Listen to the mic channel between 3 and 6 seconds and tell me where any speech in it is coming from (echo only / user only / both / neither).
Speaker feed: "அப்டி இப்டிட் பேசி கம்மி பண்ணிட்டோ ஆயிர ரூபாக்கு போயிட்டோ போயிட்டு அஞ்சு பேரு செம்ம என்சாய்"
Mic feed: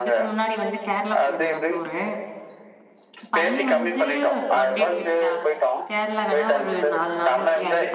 both